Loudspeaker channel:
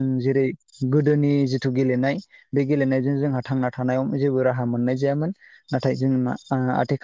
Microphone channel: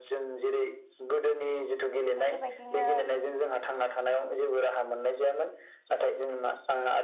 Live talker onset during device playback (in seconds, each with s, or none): 2.2 s